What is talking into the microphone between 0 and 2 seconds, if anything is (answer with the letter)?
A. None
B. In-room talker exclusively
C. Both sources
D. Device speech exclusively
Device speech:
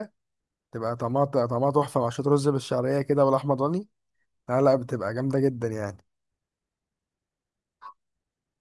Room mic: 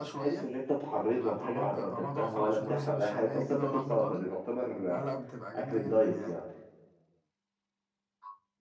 C